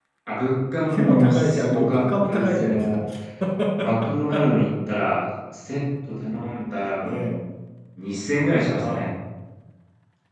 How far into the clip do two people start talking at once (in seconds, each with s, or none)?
0.9 s